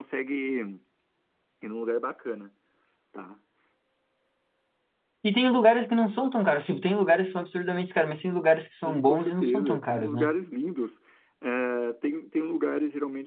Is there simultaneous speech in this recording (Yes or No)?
Yes